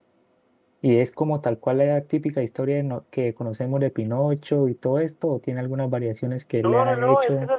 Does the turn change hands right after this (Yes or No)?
Yes